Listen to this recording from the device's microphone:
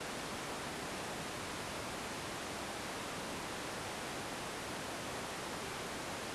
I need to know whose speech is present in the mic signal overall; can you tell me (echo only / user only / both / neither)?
neither